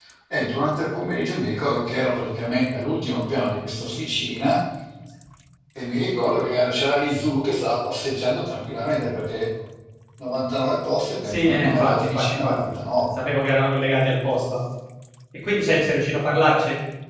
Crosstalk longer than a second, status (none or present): present